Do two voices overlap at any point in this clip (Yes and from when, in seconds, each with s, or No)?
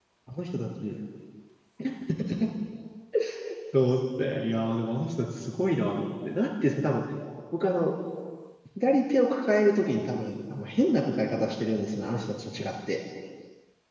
No